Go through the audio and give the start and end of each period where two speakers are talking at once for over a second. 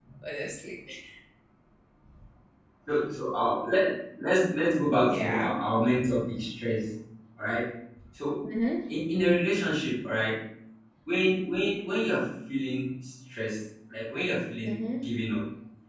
none

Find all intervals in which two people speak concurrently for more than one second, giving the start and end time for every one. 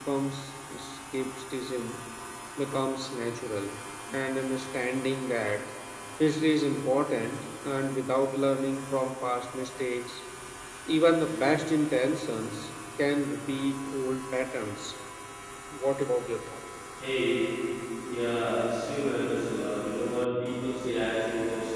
none

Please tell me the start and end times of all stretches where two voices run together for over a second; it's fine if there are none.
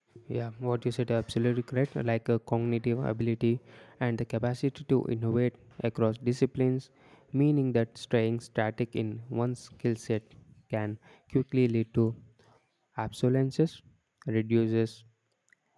none

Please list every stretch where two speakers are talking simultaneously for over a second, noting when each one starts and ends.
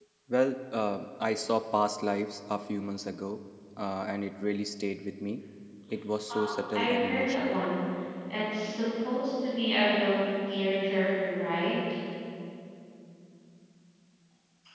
6.3-7.6

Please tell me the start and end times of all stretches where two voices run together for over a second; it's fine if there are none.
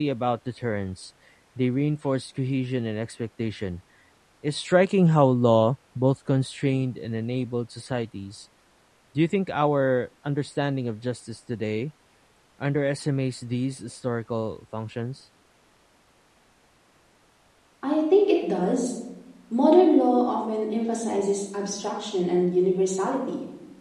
none

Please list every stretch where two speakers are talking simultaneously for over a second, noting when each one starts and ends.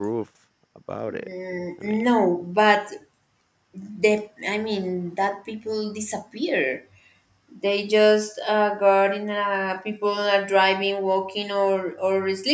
none

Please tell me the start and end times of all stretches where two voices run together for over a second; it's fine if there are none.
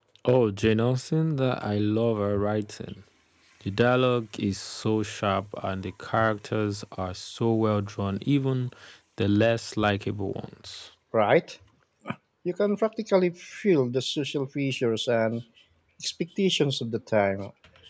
none

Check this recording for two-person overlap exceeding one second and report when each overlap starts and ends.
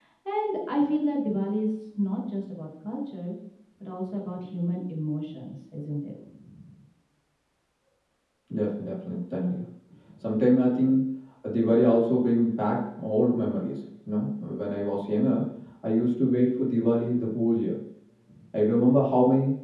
none

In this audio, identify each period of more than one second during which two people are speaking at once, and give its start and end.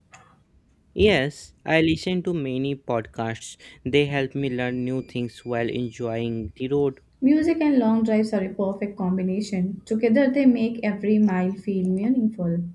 none

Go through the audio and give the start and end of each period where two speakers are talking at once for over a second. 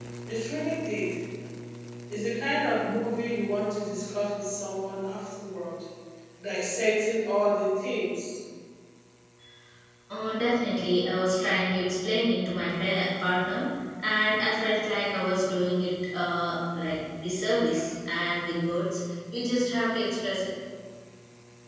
none

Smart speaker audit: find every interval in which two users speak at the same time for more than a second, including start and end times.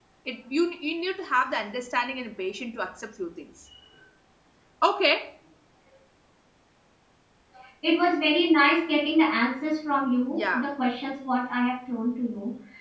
none

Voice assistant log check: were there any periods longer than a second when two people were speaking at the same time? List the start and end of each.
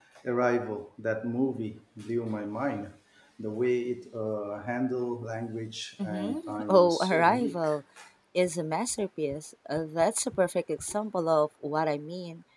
6.0-7.7

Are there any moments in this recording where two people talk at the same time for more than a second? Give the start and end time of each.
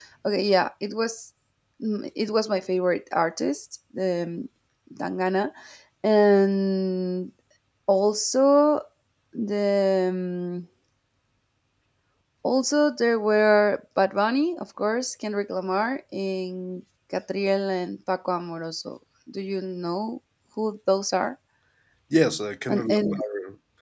none

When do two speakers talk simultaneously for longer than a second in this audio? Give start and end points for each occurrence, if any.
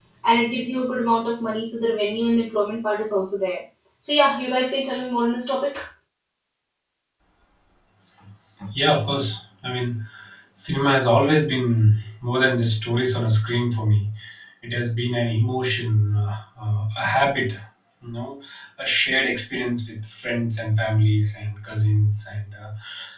none

